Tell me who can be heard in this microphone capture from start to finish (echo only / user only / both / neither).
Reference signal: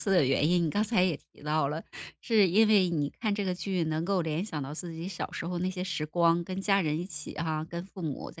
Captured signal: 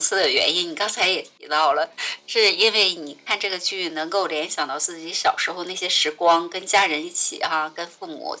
echo only